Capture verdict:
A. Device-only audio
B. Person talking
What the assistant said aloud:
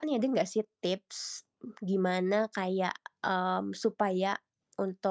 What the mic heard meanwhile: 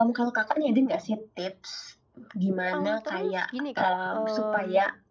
B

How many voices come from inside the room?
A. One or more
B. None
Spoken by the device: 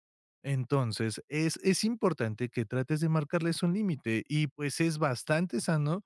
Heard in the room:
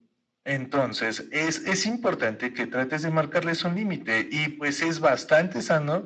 B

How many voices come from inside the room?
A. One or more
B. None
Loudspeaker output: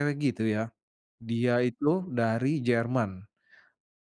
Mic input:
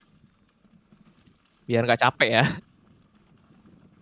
A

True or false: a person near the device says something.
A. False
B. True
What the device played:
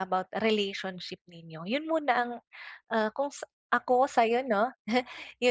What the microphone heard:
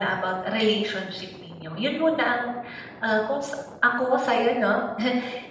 A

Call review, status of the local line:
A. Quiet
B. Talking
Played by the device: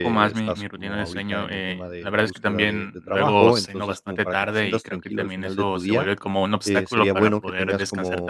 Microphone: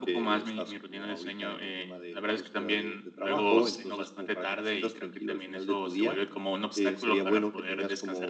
A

